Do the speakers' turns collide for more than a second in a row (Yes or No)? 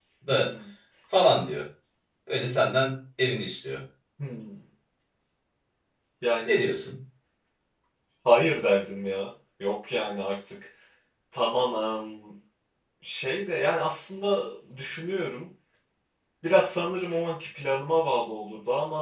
No